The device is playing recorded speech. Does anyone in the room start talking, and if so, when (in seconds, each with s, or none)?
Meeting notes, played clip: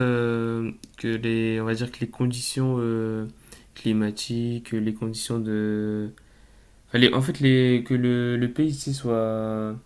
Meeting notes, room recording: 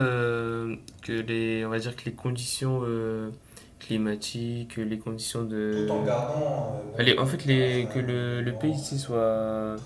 5.7 s